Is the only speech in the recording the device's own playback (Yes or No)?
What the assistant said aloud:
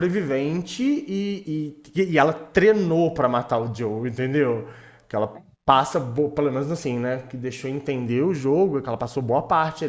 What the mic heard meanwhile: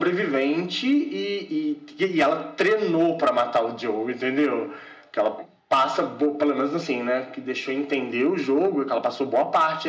Yes